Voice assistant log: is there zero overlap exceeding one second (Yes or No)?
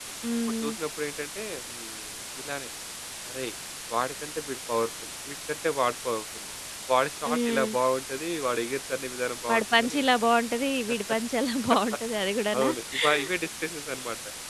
Yes